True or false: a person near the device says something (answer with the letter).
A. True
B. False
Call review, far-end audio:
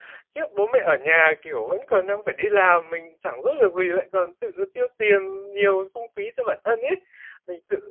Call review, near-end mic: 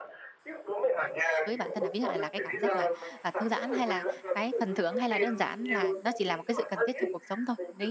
A